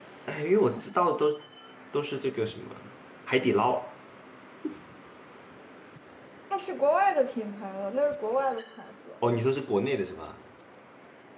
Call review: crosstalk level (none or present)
none